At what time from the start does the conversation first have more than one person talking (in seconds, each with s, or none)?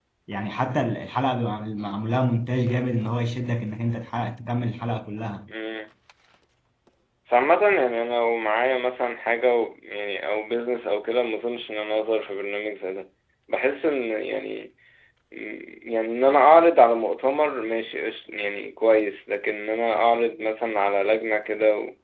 none